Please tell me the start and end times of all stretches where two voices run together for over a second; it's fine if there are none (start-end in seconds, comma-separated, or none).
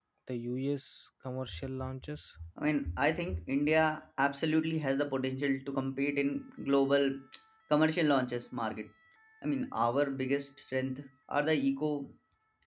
none